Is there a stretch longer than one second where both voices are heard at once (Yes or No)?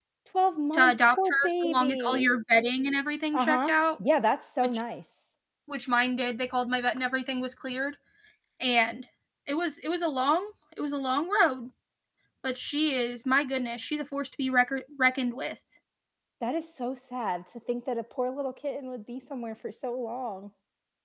Yes